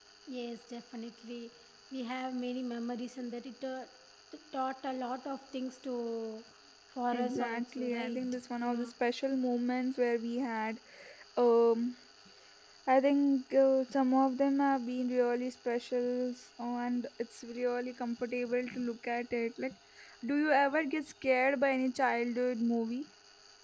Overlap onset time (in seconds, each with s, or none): 7.1 s